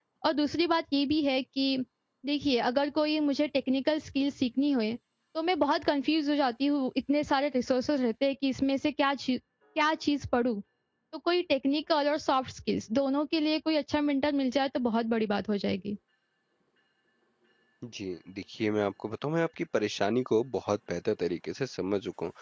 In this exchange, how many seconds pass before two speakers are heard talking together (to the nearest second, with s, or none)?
none